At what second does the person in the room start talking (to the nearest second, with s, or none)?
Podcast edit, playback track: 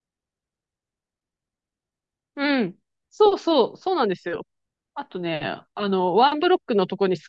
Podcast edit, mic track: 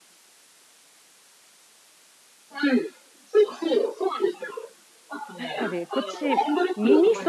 5 s